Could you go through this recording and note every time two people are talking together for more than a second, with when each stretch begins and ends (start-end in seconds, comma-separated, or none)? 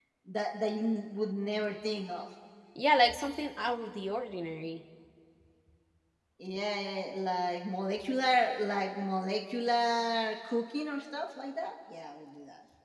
none